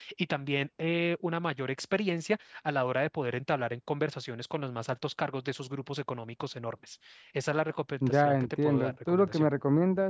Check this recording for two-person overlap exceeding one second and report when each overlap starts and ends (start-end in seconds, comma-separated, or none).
8.1-9.5